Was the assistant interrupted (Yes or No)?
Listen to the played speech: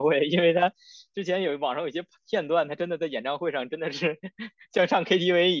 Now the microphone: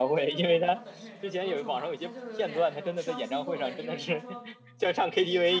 Yes